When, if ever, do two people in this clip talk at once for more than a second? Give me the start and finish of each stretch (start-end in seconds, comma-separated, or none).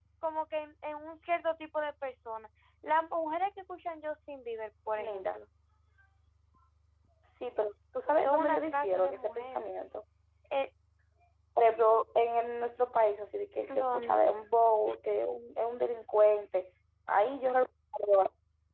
8.2-9.6